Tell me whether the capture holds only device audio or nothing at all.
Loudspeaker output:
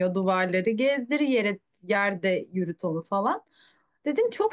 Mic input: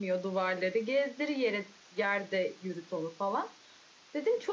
Yes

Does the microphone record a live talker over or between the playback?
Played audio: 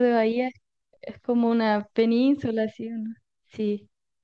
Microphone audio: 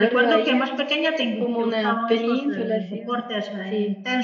Yes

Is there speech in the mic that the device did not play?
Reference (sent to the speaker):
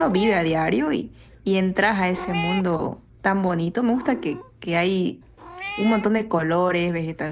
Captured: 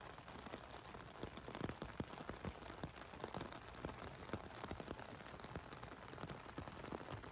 No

